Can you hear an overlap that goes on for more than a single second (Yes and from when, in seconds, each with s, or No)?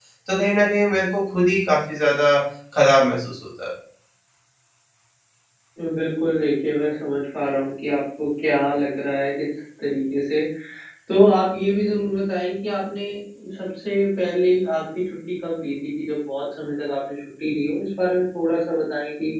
No